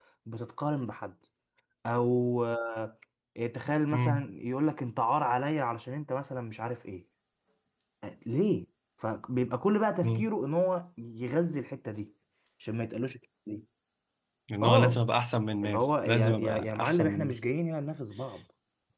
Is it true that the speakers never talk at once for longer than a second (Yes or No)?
No